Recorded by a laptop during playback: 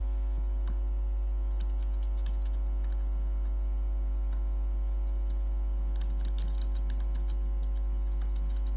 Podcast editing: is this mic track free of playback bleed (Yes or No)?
Yes